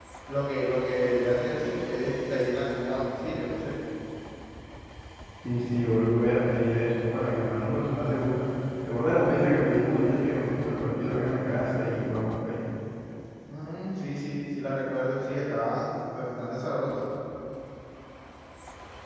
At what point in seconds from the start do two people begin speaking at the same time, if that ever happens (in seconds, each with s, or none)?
none